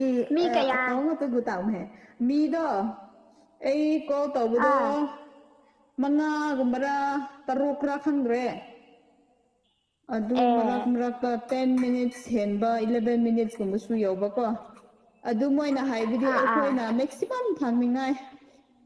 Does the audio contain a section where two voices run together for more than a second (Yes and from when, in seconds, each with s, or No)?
No